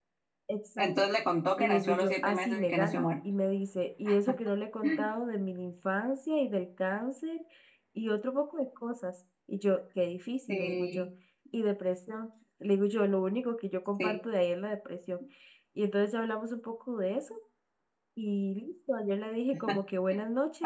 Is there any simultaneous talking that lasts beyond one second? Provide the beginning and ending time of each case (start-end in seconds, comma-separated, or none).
1.6-3.1